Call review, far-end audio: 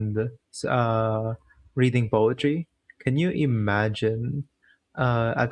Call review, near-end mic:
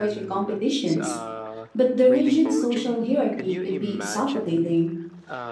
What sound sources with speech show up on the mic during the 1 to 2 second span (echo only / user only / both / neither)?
both